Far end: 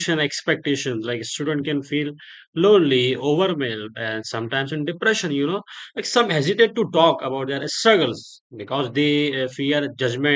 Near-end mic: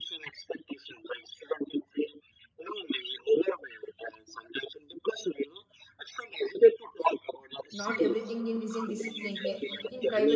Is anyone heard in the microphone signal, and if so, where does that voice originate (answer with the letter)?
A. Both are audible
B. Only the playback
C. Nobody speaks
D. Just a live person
A